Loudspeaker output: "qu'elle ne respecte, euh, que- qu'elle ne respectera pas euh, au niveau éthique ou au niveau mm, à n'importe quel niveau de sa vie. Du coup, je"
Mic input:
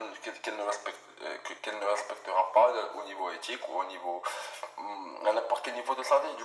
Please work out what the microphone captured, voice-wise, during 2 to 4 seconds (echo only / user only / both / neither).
echo only